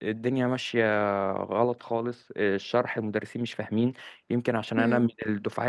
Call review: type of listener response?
listening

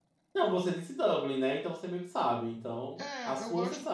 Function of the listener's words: taking over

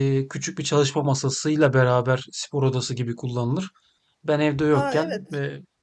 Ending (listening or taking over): listening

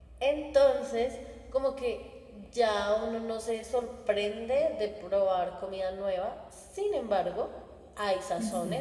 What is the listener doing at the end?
listening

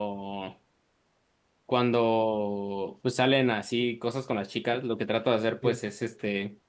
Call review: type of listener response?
listening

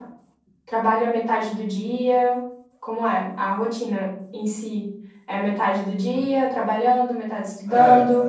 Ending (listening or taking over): taking over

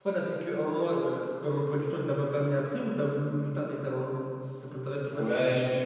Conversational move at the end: taking over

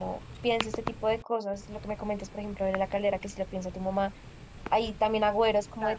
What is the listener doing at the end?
listening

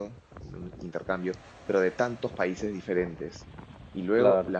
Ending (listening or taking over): listening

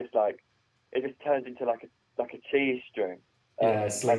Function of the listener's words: listening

